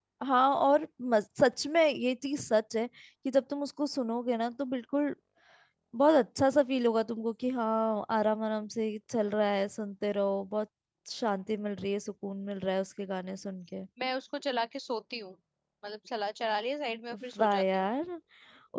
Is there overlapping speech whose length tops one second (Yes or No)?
No